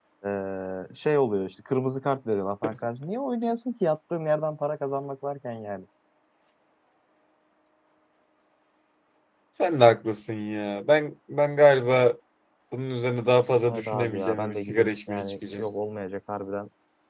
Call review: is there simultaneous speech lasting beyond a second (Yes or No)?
Yes